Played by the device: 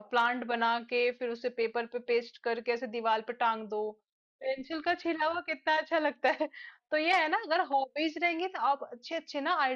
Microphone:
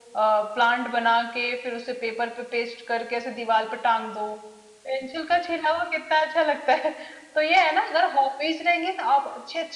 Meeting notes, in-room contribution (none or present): none